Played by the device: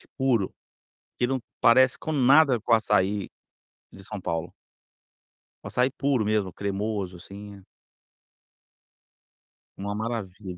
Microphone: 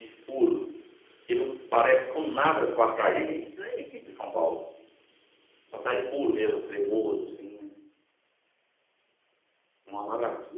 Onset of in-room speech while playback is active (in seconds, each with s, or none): 2.9 s